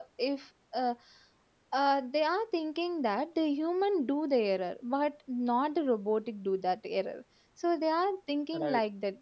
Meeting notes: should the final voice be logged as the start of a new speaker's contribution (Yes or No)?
No